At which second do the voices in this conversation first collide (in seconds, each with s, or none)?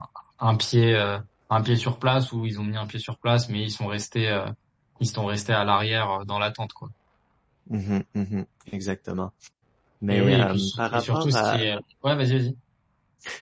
10.1 s